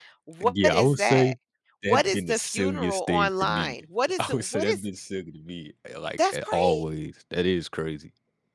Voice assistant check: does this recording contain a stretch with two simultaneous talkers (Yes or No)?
Yes